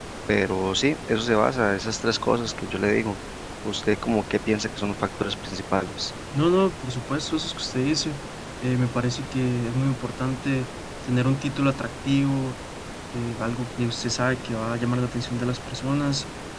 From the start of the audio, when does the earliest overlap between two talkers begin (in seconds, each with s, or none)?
none